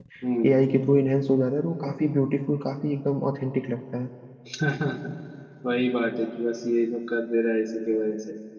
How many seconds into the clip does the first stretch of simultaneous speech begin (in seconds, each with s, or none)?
none